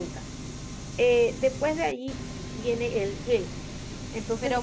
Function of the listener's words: taking over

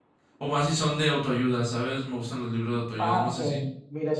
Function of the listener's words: taking over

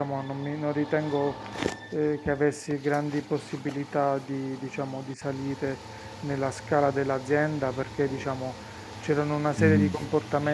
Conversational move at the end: listening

